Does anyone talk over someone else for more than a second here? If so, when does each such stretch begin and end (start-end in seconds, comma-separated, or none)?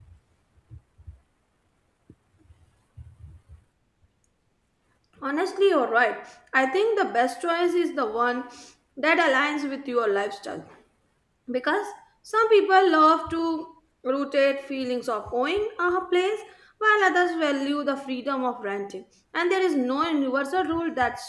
none